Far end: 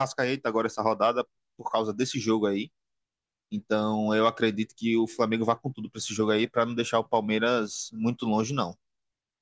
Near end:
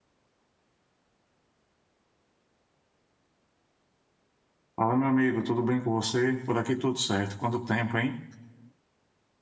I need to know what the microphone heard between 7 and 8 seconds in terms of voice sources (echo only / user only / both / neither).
user only